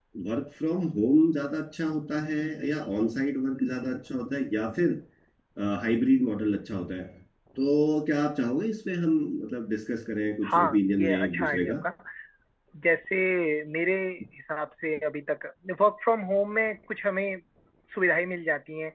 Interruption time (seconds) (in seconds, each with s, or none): 10.4 s